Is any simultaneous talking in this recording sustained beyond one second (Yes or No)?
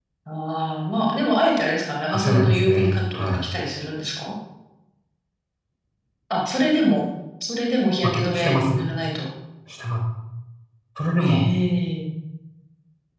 Yes